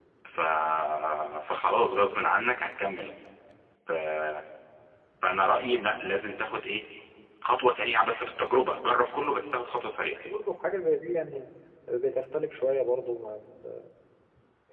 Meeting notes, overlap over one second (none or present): none